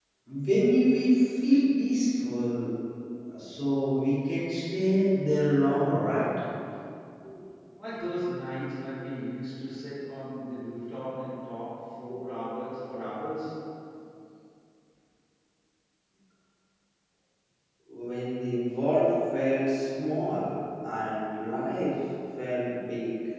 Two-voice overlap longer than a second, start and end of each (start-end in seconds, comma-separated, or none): none